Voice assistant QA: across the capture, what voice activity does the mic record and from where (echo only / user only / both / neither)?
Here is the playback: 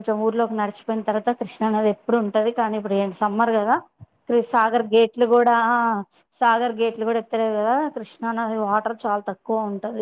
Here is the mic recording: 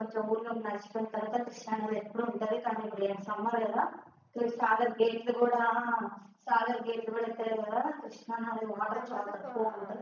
both